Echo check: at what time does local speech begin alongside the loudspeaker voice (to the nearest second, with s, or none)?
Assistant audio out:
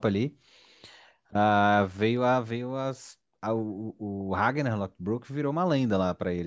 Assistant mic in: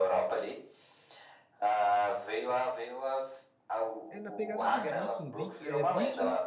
4 s